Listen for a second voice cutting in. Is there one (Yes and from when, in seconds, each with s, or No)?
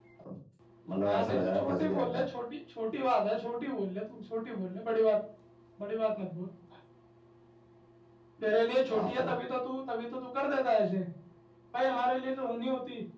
Yes, from 1.1 s